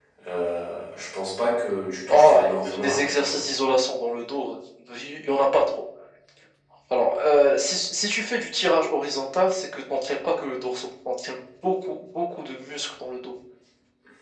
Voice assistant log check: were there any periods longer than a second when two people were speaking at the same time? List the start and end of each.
2.1-3.4

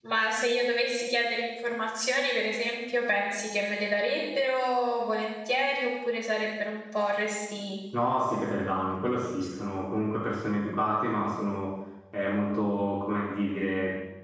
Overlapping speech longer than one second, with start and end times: none

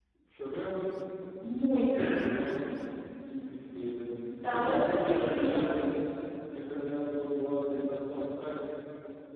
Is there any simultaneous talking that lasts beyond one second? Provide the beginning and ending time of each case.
4.4-5.7

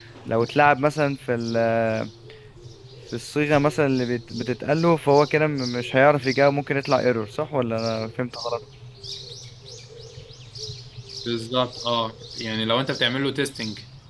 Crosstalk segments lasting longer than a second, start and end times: none

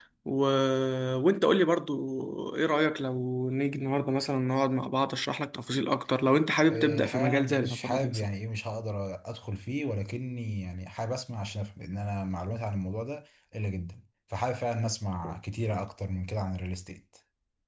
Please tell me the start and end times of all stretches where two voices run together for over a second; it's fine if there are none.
6.7-8.2

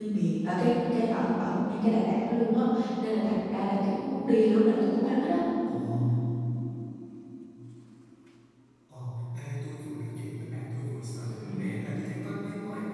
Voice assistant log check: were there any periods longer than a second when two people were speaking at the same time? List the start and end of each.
none

